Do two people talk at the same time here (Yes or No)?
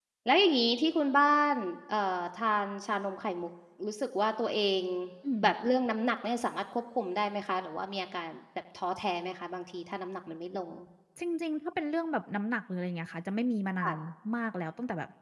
No